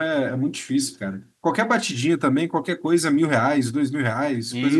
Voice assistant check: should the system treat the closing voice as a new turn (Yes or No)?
Yes